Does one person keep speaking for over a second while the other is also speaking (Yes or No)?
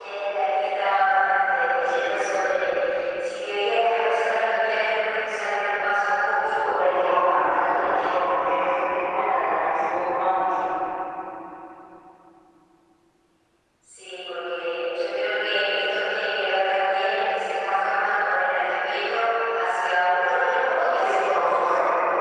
Yes